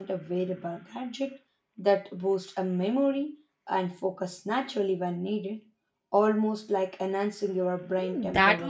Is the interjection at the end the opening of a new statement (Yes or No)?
Yes